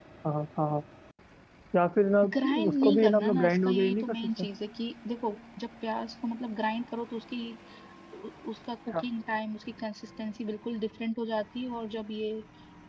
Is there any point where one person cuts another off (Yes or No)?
Yes